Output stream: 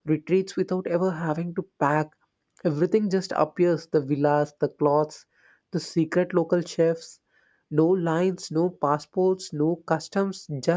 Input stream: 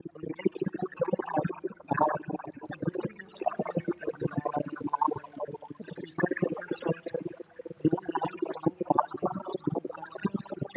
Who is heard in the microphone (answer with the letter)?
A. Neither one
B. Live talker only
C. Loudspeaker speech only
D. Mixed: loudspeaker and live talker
C